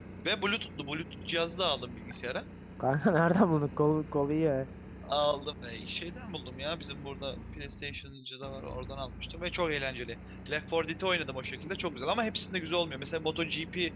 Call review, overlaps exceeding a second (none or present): none